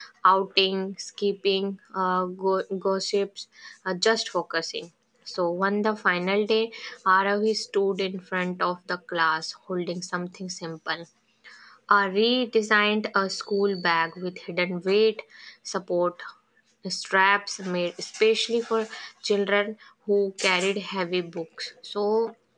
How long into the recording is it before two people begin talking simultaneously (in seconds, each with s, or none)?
none